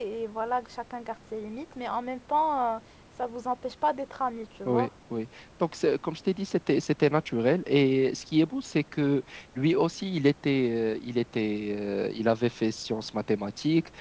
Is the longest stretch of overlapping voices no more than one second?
Yes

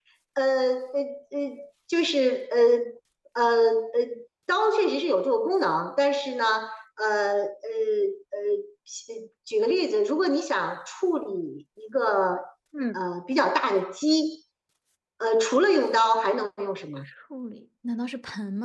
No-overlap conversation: Yes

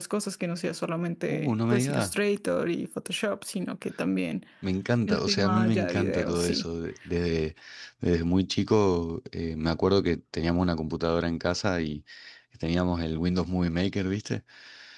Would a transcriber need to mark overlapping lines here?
Yes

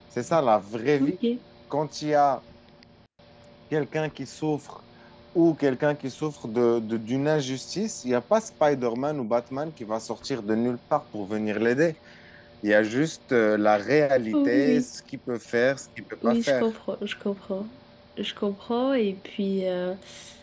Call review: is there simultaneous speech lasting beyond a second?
No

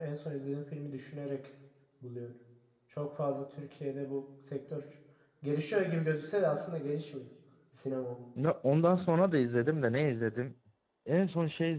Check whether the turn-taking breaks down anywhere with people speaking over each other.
No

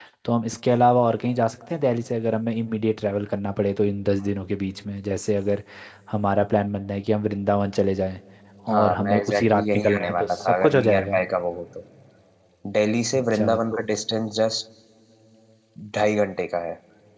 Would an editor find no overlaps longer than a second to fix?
No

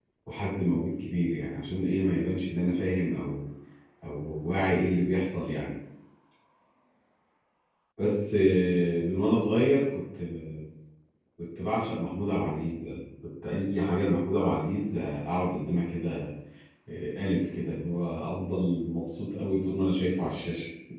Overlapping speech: No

